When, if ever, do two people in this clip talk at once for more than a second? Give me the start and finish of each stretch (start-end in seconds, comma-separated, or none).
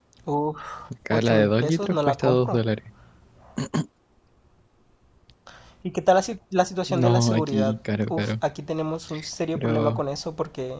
1.1-2.6, 7.0-8.4